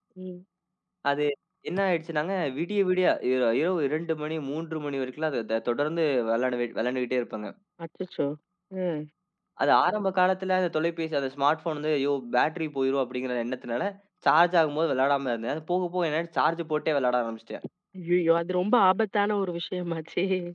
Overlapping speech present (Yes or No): No